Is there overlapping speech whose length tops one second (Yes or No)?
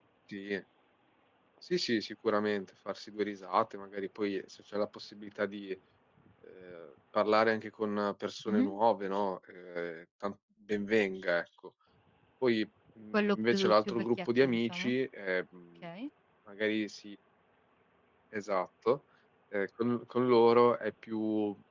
Yes